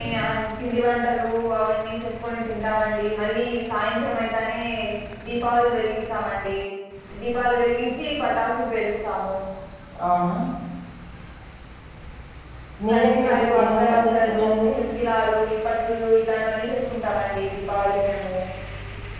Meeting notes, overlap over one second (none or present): present